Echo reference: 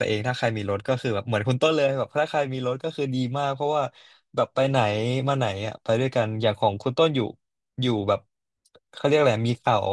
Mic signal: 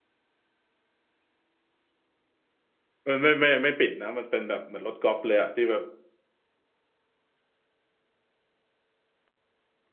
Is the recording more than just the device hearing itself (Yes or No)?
Yes